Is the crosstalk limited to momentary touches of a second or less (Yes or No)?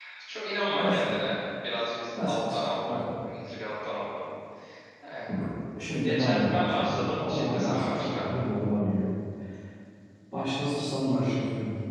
No